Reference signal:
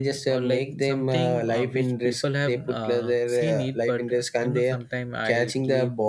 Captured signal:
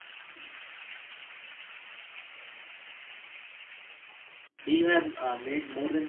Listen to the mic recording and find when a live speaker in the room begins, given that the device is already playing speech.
5 s

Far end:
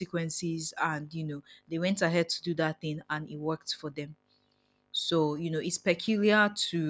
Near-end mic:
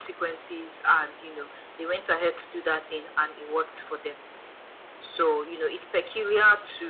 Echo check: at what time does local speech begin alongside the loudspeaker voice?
none

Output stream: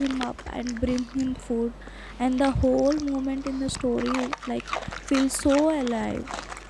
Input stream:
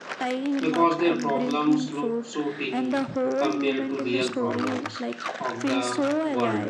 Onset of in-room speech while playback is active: 1 s

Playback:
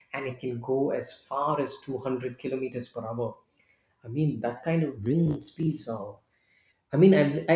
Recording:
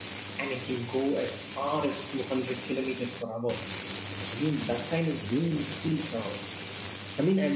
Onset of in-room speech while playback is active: none

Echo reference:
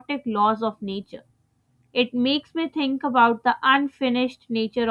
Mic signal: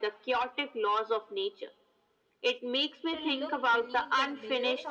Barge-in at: 3 s

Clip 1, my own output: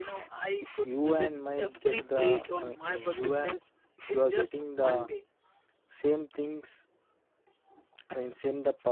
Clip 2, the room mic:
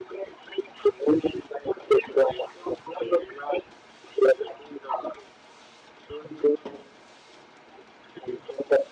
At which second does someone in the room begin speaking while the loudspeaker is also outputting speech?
none

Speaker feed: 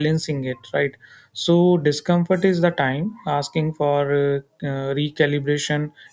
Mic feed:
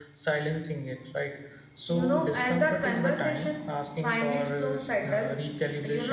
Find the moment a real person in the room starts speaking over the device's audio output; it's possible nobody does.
2 s

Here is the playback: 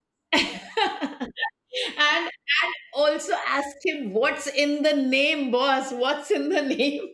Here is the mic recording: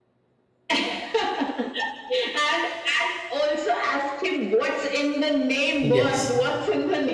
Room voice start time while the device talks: 6 s

